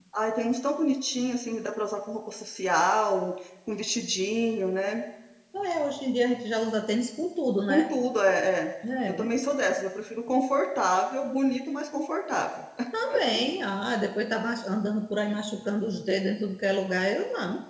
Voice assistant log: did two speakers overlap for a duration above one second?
No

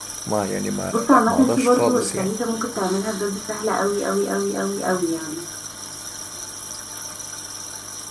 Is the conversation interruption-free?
No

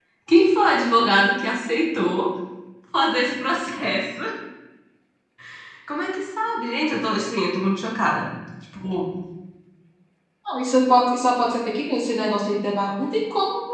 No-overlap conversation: Yes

